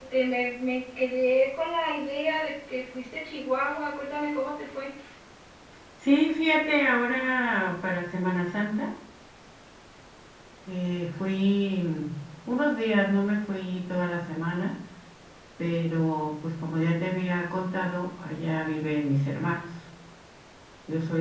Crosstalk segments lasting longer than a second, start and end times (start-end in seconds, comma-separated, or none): none